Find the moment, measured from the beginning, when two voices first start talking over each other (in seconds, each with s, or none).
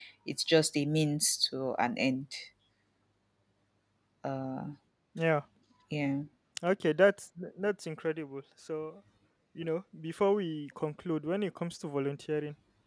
none